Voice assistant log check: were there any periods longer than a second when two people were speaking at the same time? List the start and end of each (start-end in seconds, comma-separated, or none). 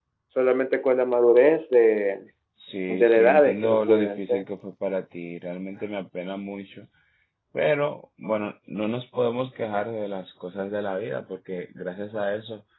2.9-4.5